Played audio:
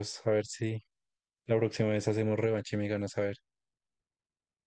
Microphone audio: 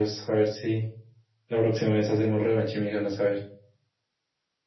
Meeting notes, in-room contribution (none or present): none